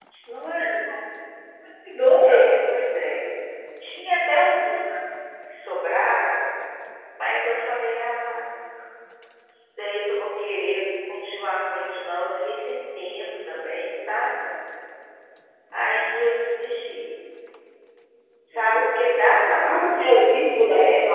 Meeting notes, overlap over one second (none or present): none